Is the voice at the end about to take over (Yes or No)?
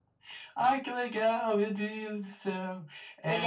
No